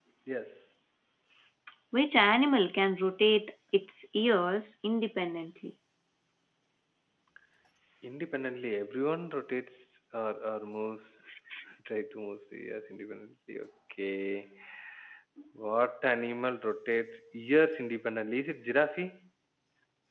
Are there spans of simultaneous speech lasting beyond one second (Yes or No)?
No